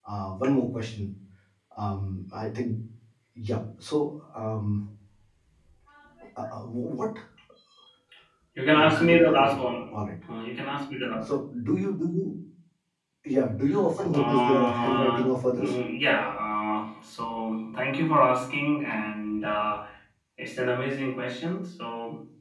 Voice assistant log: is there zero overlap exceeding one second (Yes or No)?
No